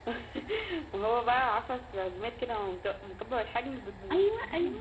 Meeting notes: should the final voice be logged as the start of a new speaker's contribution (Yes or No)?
Yes